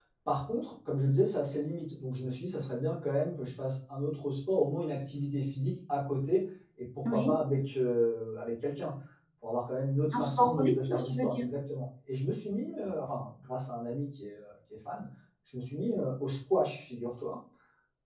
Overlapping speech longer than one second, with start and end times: 10.1-11.4

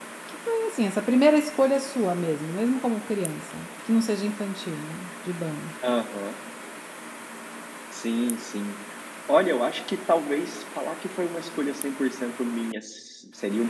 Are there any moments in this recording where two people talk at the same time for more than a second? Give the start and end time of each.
none

